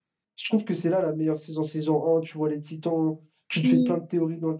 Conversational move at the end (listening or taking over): listening